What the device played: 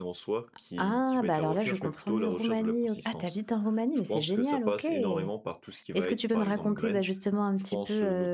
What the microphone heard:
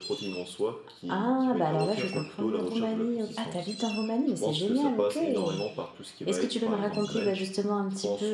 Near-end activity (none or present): none